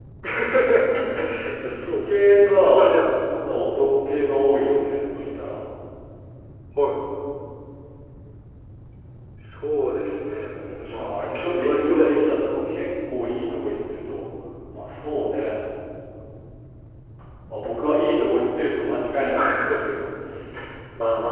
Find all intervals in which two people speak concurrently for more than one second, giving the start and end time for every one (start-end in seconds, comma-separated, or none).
1.6-2.9, 10.8-12.7